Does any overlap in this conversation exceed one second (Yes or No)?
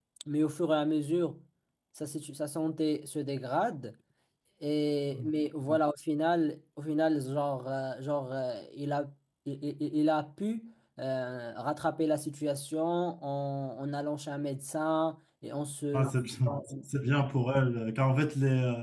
No